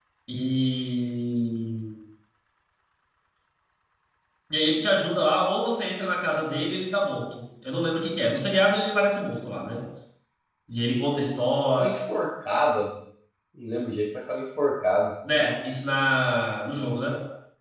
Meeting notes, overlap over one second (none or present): none